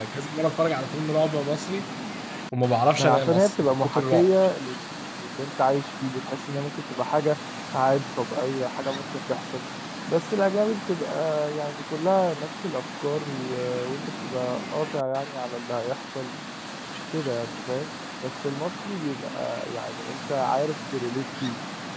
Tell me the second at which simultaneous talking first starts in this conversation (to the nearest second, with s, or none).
3 s